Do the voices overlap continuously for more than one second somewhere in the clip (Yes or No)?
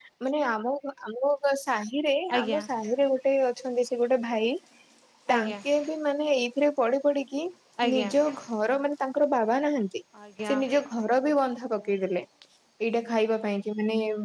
No